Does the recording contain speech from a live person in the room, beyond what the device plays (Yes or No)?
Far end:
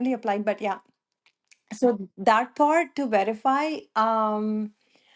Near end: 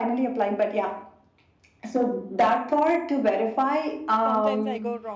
Yes